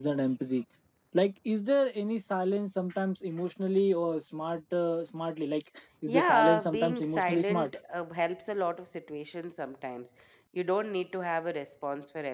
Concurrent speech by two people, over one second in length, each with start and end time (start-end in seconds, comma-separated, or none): 6.1-7.7